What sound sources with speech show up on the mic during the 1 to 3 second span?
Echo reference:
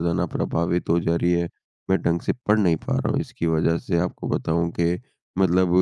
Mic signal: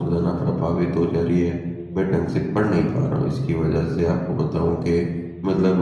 echo only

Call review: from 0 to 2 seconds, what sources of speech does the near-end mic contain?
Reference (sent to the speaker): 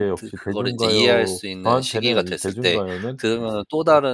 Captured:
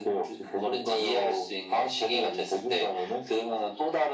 echo only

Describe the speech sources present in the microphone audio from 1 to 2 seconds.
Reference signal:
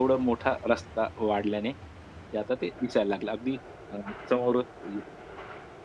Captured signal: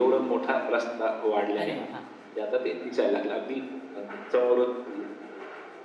both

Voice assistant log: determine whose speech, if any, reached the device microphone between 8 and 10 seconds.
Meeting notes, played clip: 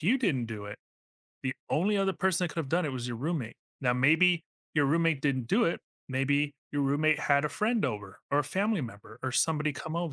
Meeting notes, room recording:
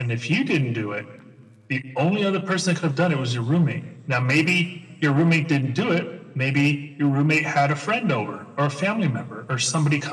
echo only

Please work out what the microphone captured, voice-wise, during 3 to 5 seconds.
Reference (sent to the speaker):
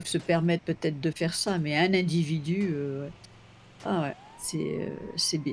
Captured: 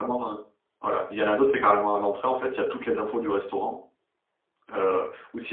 user only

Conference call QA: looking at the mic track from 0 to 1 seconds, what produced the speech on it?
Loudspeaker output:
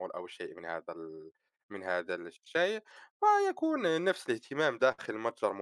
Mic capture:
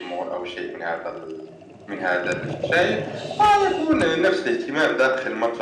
echo only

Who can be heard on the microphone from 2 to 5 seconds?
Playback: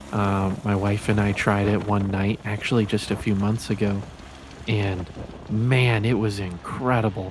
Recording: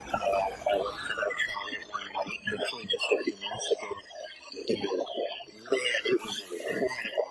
echo only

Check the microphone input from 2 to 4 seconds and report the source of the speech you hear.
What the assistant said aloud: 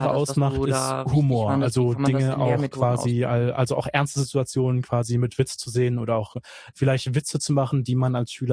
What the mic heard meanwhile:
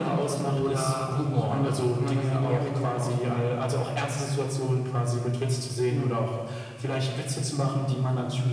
echo only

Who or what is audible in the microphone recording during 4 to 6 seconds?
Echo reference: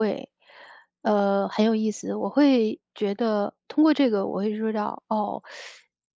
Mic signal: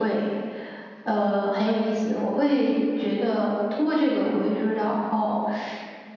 echo only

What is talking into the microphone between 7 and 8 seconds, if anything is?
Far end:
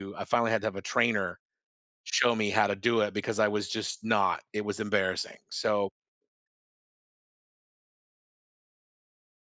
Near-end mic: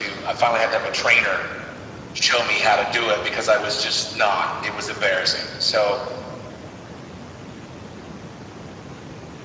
neither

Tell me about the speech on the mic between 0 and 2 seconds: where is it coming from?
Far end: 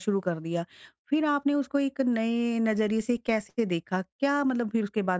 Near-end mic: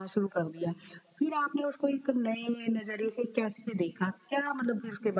echo only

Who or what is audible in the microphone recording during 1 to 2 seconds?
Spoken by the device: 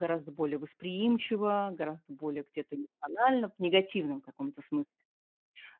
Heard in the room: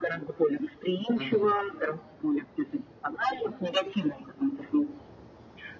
both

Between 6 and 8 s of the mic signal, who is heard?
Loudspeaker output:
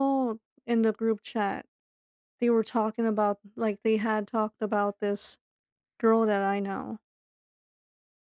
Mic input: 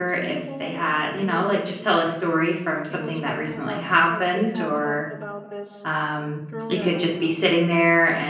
both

